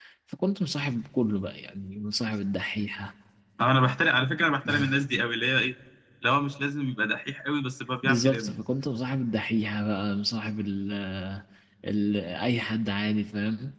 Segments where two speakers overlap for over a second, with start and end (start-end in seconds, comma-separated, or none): none